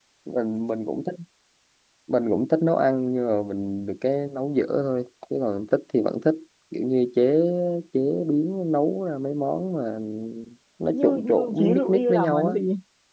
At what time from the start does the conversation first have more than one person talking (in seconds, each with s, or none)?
10.9 s